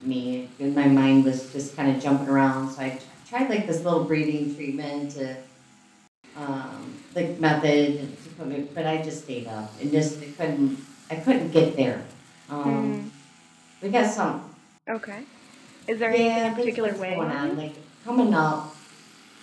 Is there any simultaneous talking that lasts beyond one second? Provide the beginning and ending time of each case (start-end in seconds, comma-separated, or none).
16.1-17.6